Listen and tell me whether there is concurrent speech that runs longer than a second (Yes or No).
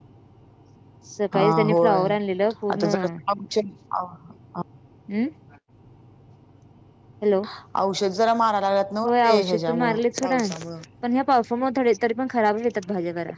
Yes